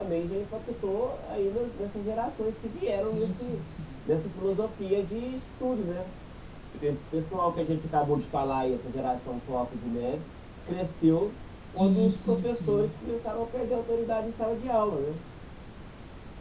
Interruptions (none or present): present